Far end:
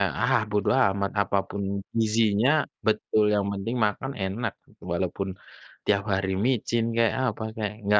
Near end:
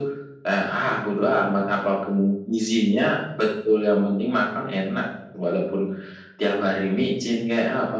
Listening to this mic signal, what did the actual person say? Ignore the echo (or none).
none